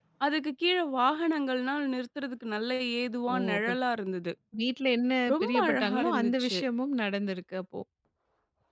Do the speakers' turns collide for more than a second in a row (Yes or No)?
Yes